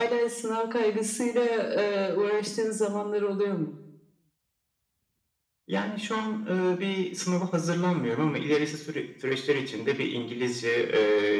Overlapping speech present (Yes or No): No